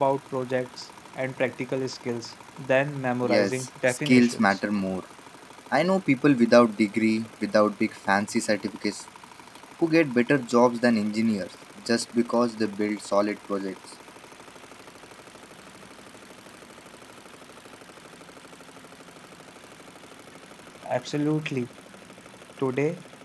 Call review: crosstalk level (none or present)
present